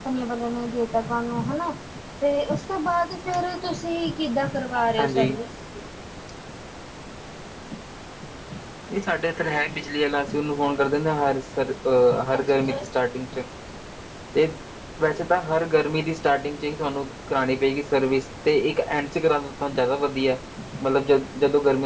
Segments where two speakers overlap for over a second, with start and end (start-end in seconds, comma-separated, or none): none